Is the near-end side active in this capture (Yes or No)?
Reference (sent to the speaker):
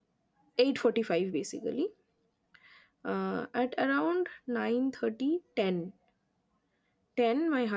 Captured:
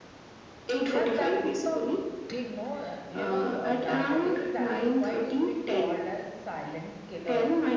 Yes